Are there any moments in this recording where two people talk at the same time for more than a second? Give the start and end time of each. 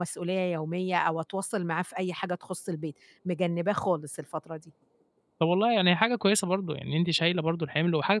none

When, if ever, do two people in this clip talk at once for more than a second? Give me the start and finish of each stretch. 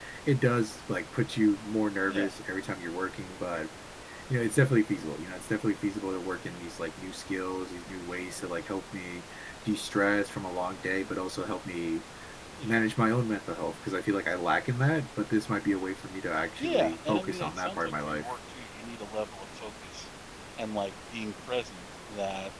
16.6-18.3

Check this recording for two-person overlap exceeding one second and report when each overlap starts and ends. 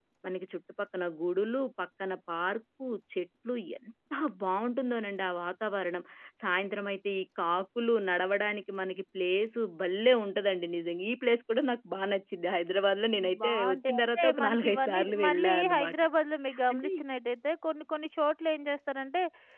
13.4-15.9

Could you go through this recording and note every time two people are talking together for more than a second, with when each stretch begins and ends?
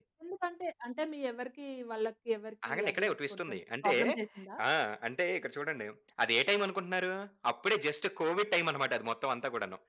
2.7-3.9

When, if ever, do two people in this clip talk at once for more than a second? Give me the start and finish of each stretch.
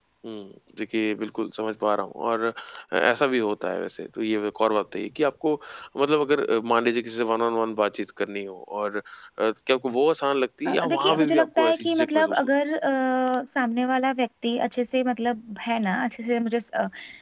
10.7-12.5

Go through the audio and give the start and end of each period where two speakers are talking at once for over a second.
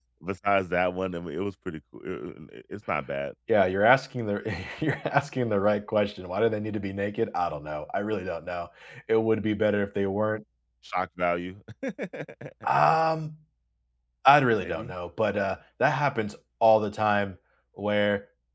none

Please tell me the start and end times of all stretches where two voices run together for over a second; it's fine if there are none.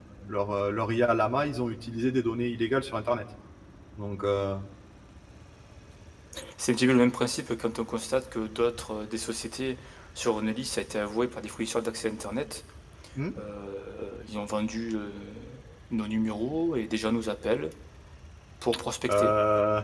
none

